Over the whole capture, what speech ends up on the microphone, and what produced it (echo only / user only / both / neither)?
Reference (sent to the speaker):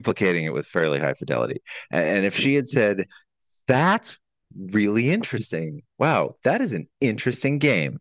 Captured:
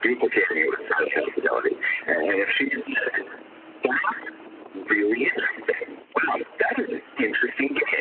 echo only